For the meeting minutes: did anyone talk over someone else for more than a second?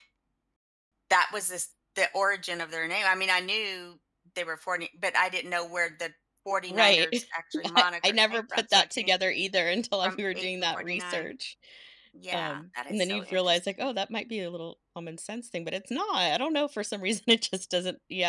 Yes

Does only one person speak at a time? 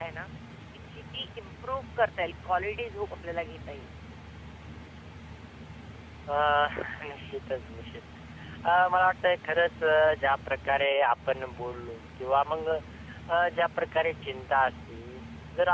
Yes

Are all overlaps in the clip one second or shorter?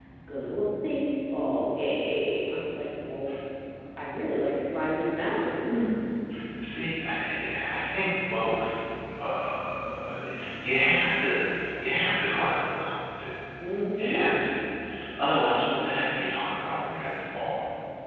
Yes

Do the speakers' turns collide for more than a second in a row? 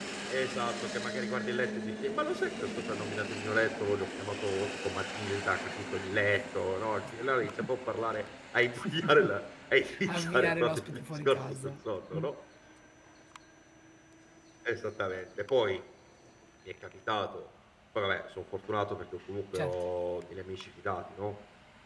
Yes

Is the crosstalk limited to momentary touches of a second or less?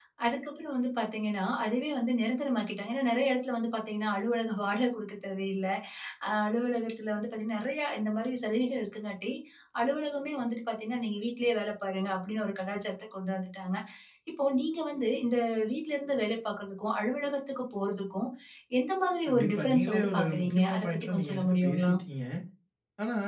No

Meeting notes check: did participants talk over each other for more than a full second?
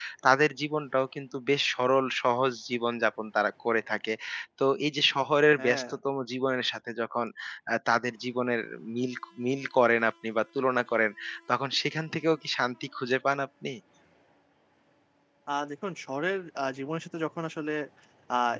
No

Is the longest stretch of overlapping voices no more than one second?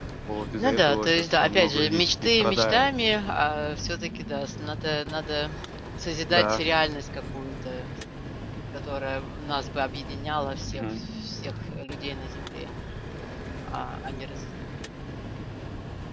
No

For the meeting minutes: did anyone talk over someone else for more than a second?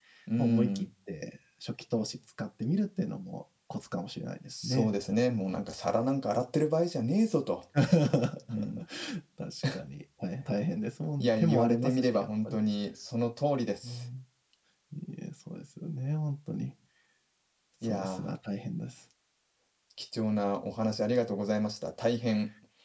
Yes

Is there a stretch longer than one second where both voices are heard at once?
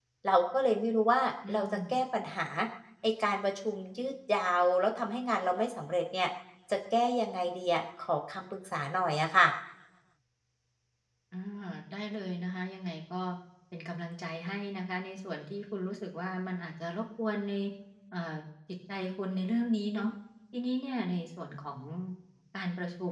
No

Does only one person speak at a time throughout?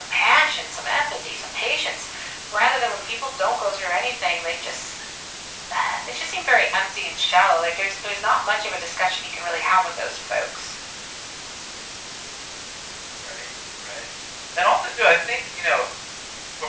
Yes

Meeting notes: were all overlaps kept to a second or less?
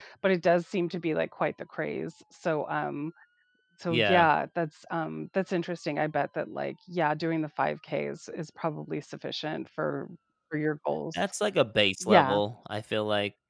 Yes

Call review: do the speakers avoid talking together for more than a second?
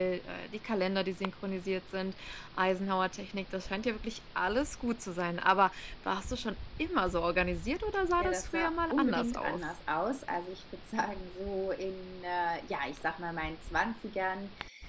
No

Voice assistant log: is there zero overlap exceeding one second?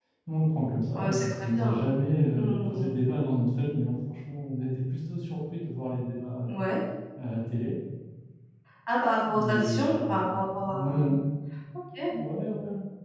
No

